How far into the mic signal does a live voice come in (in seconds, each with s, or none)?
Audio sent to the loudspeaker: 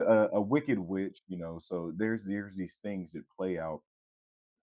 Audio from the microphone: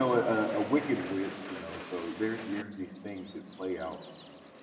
none